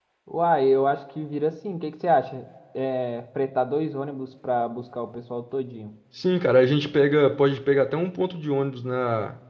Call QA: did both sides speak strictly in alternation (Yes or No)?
Yes